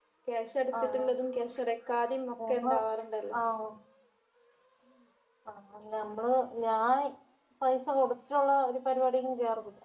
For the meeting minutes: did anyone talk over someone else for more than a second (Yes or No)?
No